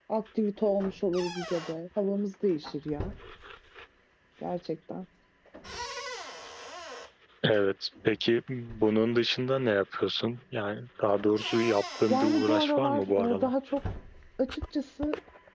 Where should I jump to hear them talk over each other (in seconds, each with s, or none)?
12.1 s